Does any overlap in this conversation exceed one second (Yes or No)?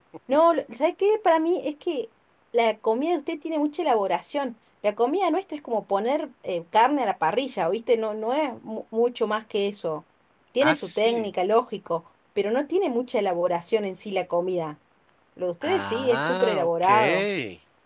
Yes